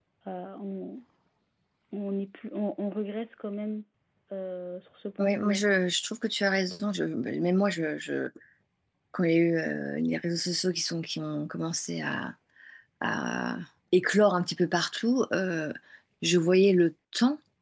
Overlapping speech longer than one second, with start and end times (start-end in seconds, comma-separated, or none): none